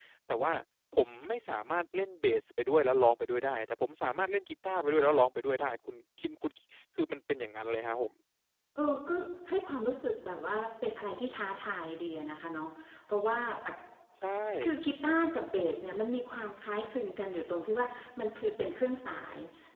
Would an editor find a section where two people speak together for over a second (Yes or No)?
No